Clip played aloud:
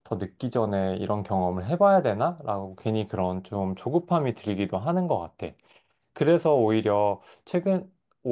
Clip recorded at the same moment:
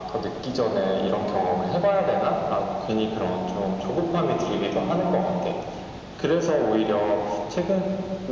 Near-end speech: none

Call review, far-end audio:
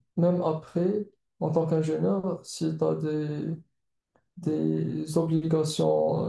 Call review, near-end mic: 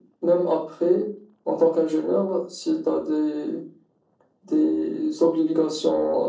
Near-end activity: none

